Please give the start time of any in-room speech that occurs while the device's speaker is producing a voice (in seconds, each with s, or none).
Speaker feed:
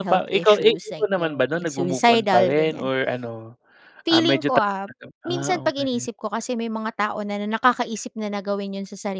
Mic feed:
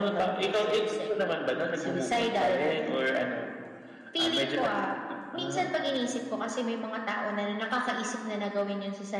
none